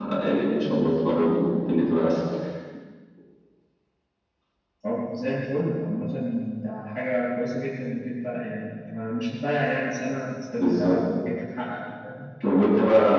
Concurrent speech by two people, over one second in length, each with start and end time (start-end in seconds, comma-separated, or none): none